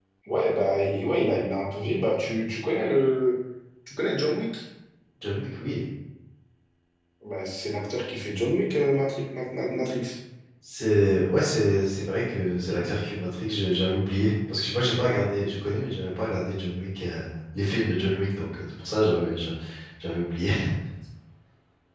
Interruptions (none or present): none